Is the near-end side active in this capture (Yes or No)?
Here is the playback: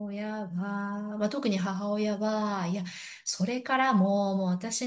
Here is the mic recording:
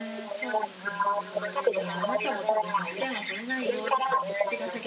Yes